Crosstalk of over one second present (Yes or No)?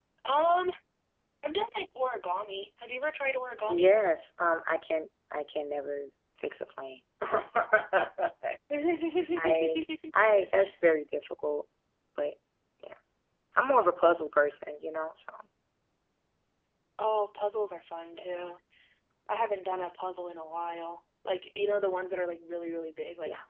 No